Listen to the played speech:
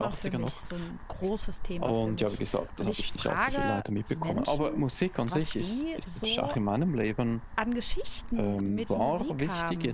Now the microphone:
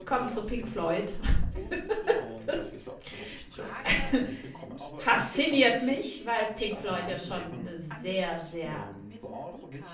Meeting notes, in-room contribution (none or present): present